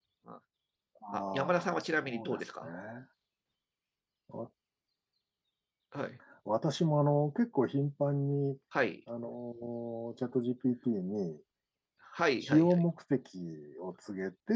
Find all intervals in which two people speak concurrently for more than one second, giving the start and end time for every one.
1.1-2.7

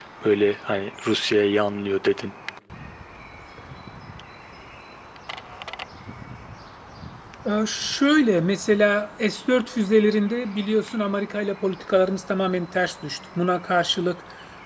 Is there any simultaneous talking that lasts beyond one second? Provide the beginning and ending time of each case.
none

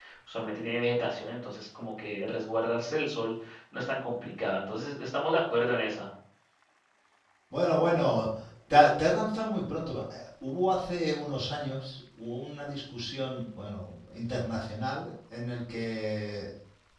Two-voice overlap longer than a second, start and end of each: none

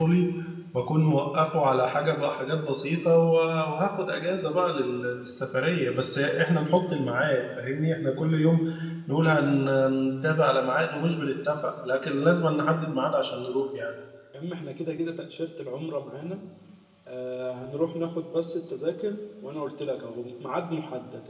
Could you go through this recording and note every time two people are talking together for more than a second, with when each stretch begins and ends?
none

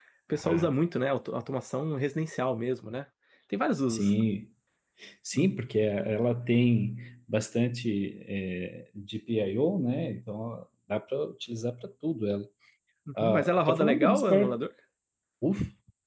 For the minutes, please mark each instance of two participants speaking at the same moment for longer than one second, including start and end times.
13.2-14.6

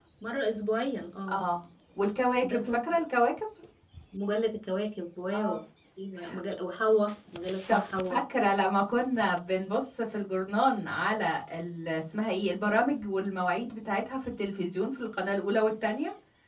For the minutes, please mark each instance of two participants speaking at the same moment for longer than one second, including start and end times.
none

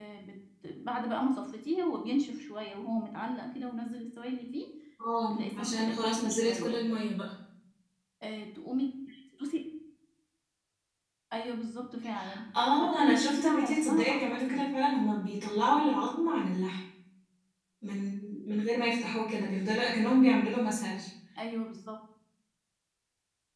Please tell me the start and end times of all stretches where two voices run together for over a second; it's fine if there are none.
5.3-6.8, 12.8-14.7

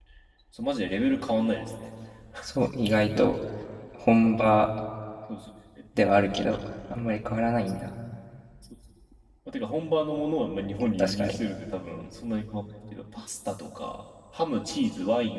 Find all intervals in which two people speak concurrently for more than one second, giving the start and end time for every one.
none

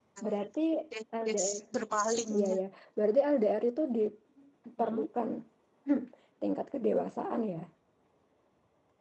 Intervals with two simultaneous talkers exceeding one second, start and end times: none

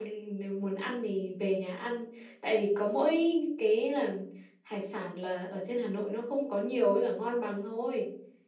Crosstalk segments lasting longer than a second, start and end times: none

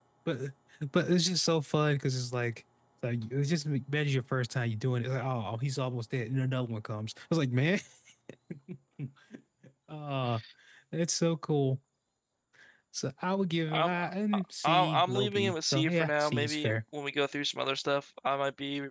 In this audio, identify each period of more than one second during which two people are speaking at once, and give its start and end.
14.3-16.7

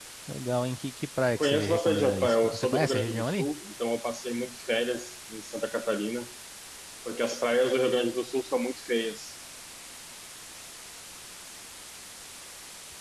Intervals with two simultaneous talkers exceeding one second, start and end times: 1.4-3.5

